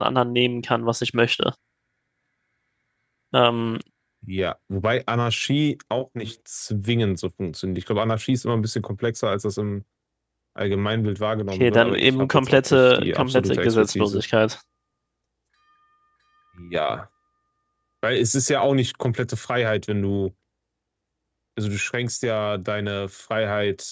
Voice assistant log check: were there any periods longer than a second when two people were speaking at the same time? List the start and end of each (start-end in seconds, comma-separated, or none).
11.5-14.2